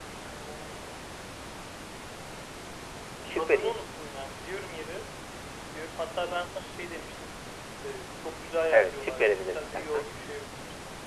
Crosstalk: present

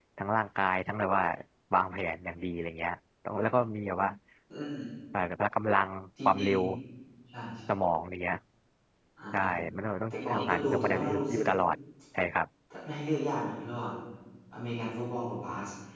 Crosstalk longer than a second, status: present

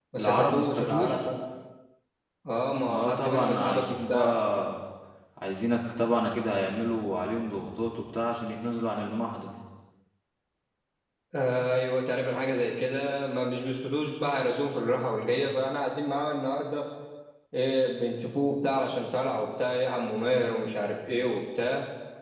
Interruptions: present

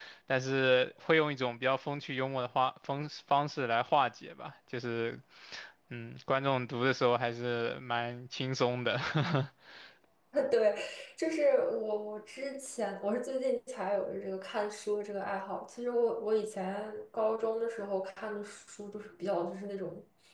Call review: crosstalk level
none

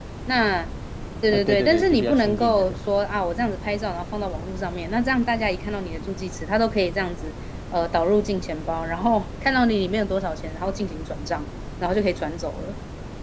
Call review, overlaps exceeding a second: present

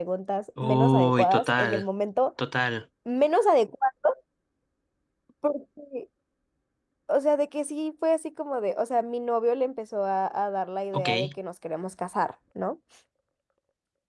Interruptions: present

